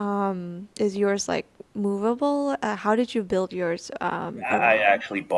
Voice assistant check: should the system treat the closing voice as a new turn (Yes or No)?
Yes